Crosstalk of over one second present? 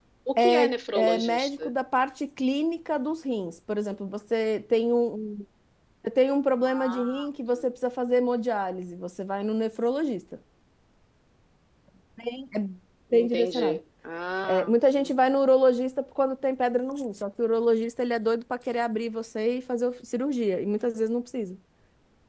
Yes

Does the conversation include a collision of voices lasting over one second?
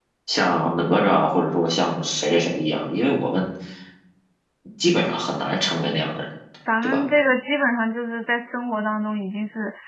No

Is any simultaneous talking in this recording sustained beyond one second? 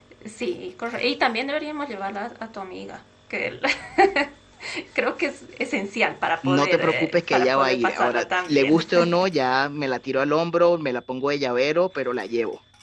Yes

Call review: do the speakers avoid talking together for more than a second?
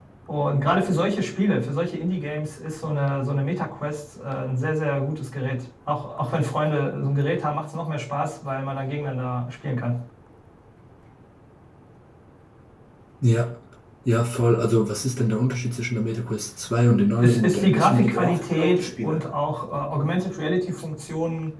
No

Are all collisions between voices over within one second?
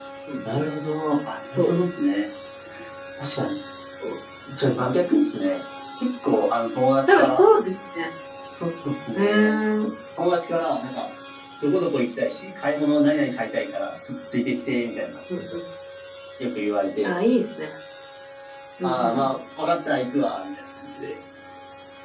Yes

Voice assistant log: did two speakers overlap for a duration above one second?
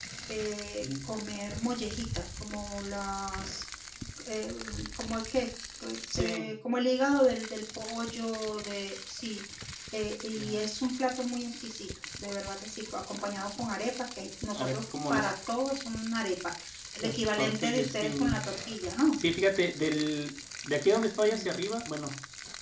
Yes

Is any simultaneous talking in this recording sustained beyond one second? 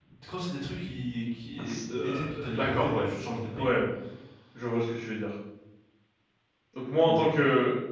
Yes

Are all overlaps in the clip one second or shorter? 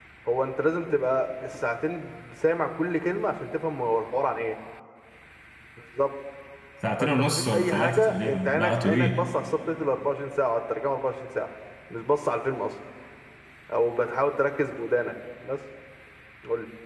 No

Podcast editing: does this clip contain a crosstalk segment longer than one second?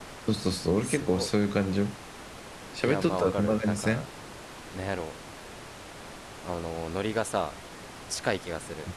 Yes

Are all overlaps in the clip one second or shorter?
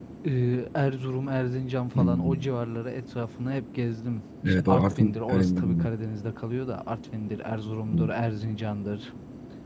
No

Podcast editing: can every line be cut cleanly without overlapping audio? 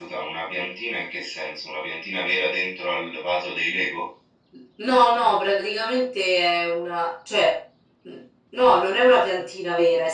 Yes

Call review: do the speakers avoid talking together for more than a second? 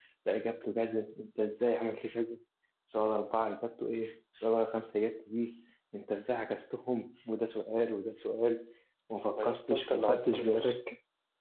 No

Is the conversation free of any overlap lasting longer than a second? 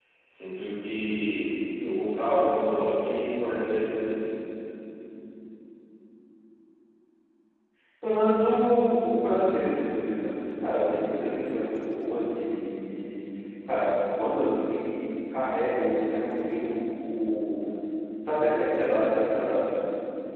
Yes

